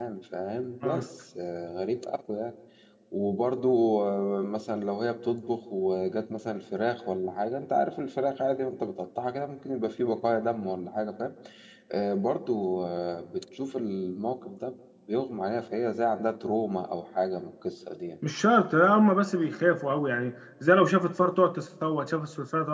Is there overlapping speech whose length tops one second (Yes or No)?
No